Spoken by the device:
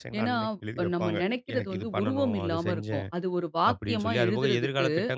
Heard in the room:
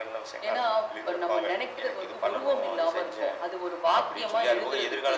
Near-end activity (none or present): none